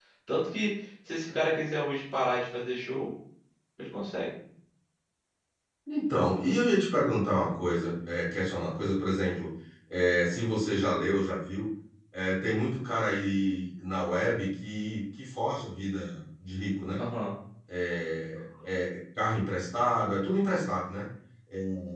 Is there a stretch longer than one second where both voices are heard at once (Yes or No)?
No